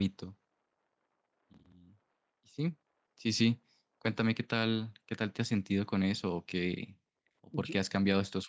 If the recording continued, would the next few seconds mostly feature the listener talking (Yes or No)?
No